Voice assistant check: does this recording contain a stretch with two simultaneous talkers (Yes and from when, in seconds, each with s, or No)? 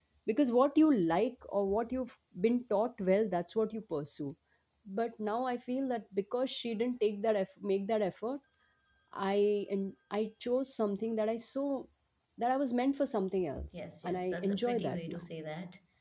Yes, from 13.7 s